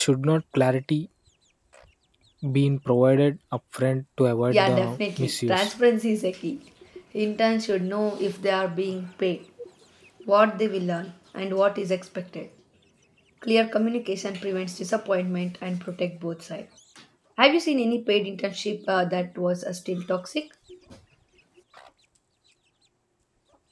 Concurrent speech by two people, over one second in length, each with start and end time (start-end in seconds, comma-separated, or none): 4.5-5.7